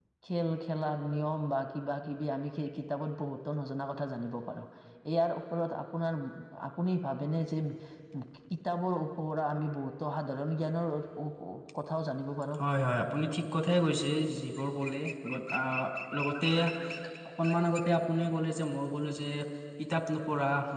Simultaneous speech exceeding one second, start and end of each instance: none

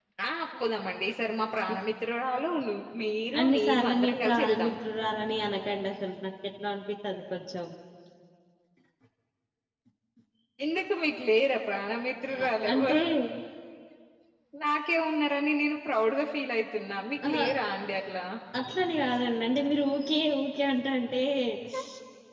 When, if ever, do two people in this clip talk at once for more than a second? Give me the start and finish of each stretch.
3.4-4.7

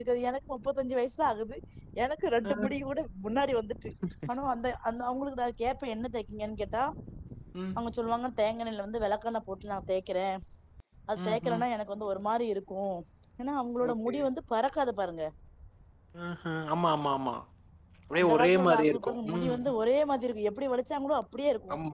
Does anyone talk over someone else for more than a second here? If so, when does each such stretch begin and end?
18.2-19.7

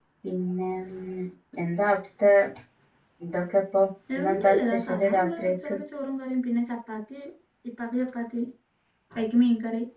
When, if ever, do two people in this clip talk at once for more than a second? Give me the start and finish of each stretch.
4.3-5.7

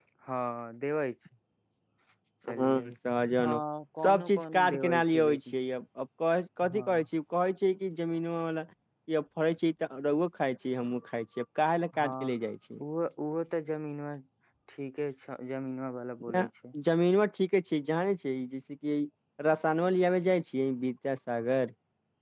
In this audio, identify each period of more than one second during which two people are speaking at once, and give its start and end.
4.0-5.6

